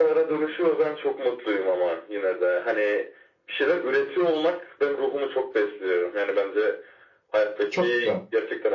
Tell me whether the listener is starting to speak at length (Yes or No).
No